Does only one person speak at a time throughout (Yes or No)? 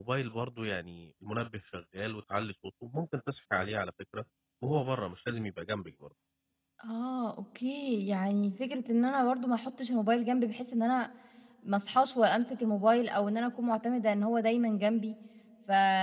Yes